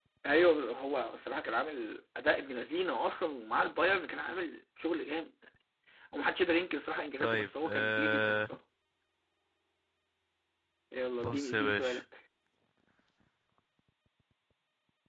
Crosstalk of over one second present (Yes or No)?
Yes